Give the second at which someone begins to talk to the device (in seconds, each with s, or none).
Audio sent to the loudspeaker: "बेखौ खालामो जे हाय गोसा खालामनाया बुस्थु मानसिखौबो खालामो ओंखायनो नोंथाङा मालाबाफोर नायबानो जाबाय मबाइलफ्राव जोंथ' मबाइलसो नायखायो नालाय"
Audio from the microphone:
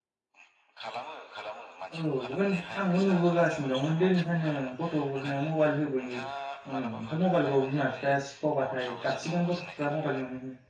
2.0 s